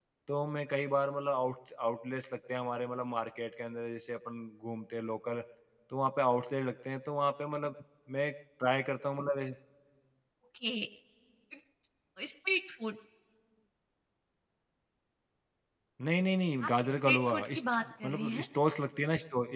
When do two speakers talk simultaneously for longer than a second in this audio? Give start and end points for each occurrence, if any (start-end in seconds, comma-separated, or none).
16.7-18.4